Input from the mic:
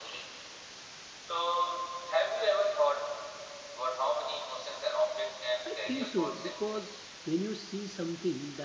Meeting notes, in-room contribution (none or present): present